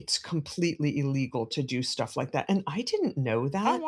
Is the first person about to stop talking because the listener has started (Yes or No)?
No